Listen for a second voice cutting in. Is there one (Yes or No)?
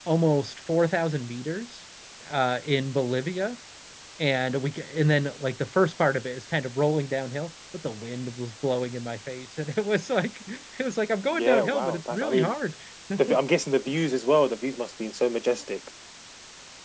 Yes